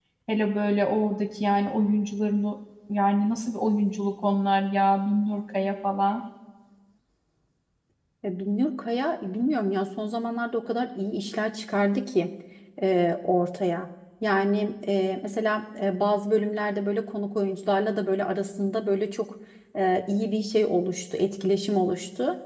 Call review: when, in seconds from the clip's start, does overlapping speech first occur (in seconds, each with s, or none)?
none